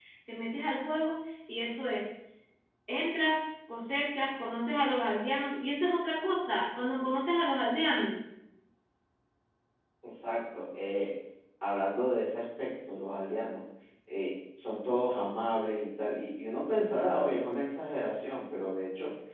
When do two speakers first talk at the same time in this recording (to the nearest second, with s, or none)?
none